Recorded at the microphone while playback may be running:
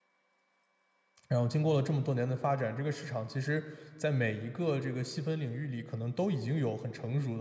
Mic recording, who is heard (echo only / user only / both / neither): user only